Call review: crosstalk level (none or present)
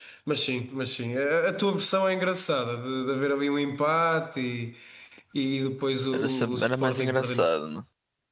present